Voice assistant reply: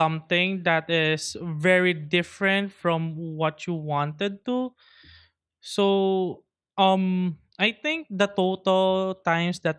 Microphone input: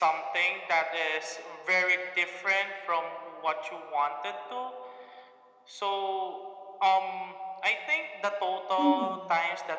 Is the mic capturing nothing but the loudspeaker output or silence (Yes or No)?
No